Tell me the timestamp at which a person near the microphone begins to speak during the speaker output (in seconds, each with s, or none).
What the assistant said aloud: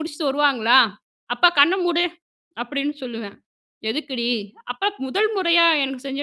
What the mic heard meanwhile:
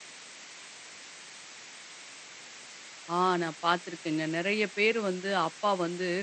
3.1 s